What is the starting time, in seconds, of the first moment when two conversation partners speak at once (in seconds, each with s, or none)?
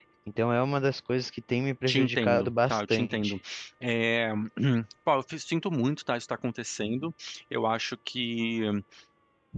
1.9 s